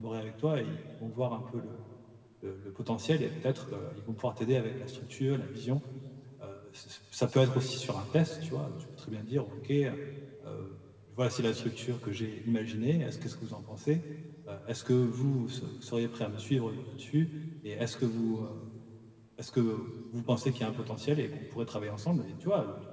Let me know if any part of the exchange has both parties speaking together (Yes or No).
No